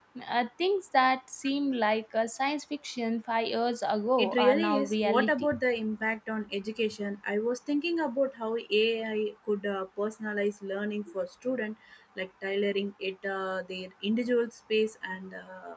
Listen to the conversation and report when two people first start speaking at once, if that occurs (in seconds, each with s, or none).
4.2 s